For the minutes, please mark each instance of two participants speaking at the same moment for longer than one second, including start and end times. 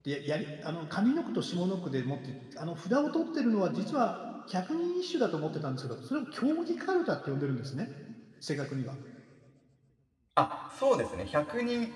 none

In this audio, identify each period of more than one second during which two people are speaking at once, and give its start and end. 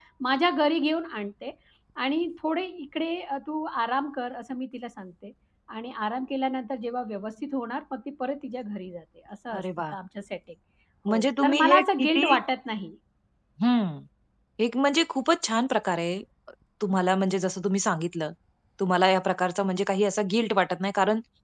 11.1-12.4

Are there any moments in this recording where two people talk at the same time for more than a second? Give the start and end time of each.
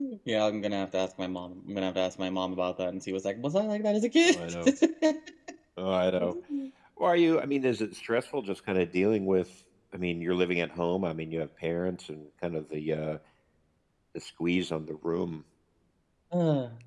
none

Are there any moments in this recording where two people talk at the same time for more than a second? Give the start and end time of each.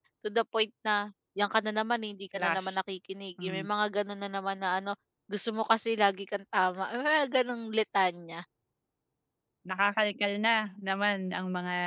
none

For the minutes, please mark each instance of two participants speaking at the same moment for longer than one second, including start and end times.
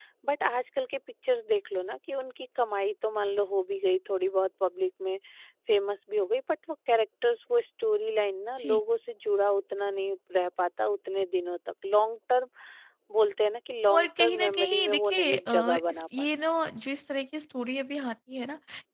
13.9-16.3

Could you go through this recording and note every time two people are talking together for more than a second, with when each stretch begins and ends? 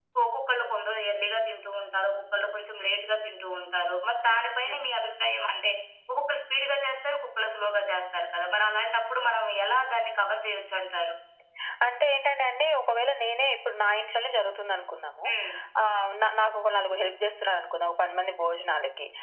none

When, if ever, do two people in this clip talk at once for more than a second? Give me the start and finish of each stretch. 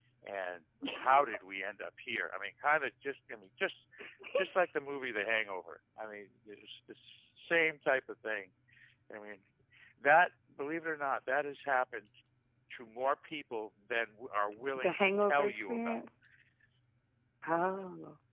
14.8-16.0

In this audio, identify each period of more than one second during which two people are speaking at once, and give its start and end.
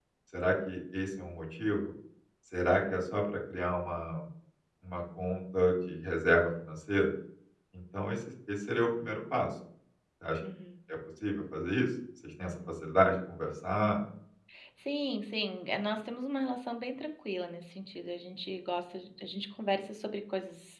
none

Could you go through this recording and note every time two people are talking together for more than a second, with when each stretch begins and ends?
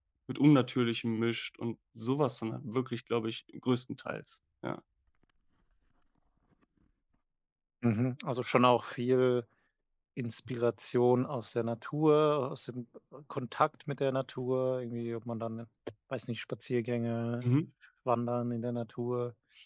none

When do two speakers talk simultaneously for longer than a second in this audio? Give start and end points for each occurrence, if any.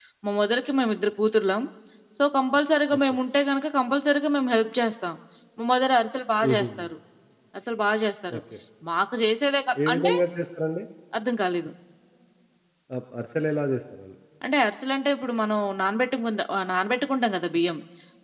none

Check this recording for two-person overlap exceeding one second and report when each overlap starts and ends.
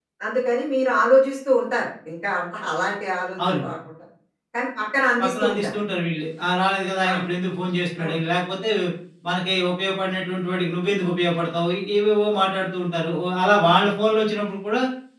none

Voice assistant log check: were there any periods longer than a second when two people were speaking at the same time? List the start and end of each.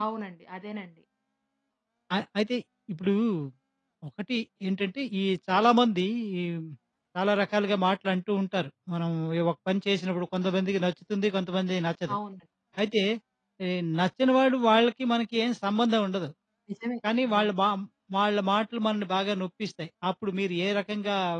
none

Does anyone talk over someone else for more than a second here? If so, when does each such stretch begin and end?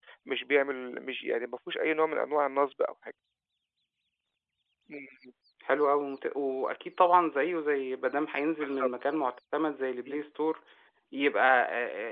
none

